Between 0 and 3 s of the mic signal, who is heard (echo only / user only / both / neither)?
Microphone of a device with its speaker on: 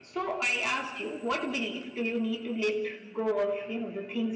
echo only